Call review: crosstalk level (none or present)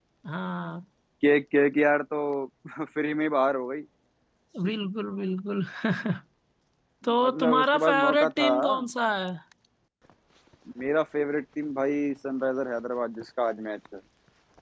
present